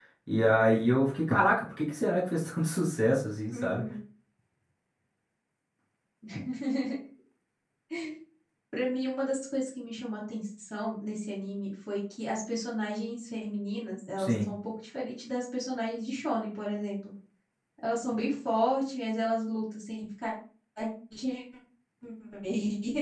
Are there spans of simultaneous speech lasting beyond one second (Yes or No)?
No